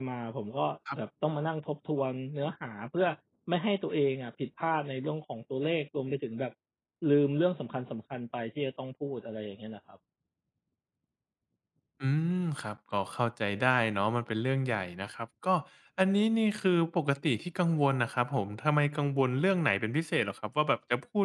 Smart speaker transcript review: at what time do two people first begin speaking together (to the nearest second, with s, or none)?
none